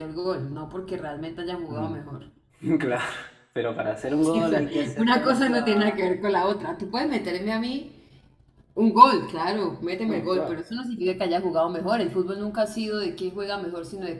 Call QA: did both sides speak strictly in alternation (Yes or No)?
No